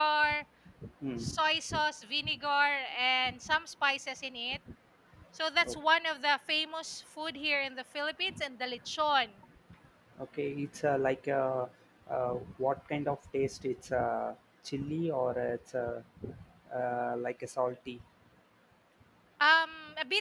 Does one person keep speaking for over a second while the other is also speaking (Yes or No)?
No